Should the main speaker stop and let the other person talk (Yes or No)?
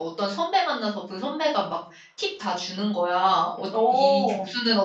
No